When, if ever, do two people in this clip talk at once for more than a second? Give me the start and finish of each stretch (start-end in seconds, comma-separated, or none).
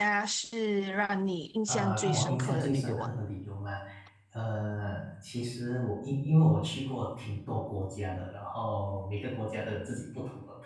1.7-3.1